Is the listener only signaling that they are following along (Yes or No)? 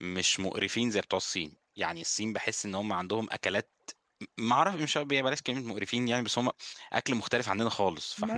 No